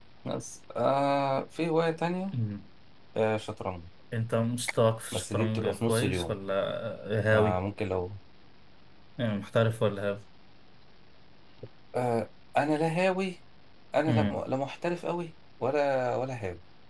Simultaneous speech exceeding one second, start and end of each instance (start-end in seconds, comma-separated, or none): 5.1-6.4